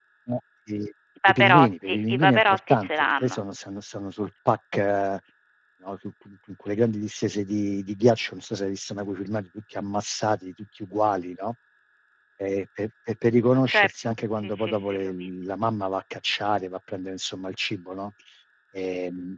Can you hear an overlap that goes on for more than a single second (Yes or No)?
Yes